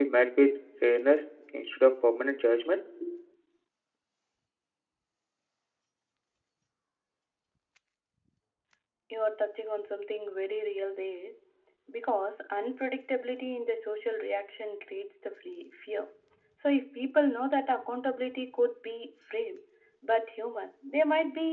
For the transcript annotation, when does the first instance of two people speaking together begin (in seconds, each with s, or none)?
none